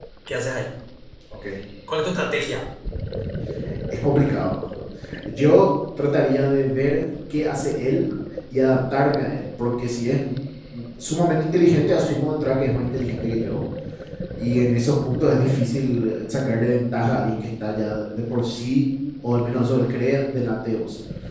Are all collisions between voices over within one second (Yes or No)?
Yes